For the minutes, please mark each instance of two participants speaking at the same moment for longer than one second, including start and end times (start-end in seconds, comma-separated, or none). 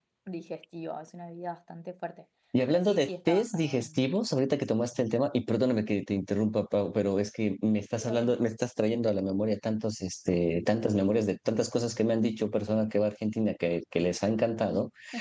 2.7-3.9